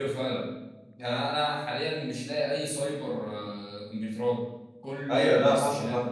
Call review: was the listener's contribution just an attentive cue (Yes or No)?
No